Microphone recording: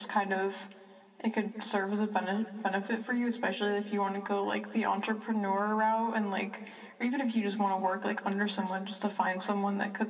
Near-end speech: none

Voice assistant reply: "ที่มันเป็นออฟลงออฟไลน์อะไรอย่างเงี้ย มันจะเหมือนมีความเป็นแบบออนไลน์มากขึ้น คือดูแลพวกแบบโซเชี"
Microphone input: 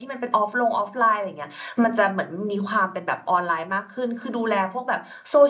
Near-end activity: none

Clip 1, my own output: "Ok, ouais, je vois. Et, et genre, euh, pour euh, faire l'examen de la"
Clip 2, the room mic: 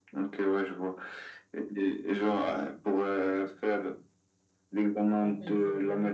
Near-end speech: present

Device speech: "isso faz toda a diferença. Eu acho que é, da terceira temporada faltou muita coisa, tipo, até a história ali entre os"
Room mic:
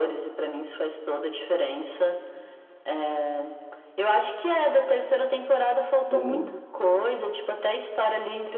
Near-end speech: present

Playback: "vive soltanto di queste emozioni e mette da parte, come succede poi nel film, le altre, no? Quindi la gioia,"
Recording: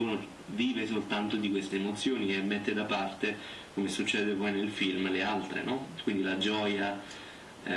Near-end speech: none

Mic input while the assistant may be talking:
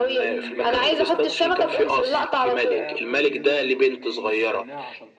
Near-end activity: present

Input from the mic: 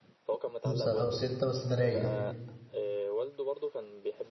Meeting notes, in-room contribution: present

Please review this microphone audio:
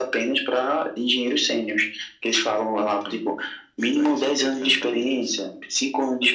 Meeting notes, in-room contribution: none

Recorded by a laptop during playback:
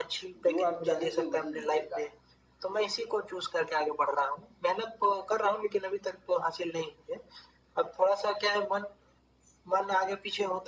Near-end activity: present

